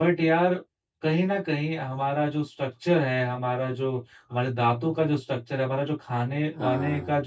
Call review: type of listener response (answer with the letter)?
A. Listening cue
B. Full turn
A